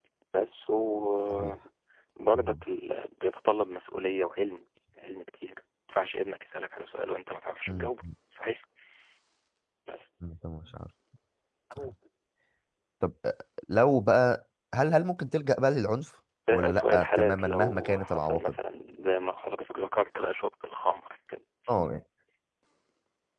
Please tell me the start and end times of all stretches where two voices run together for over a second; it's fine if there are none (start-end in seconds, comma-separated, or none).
16.5-18.6